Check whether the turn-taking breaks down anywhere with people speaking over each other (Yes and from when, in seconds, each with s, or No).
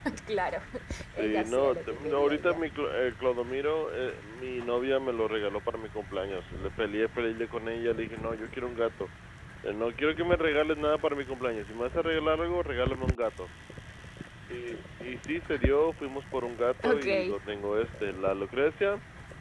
Yes, from 1.1 s